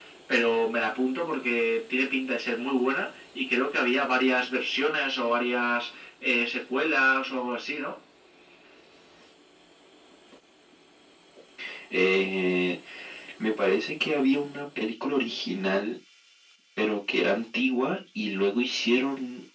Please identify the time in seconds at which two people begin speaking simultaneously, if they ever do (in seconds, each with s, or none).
none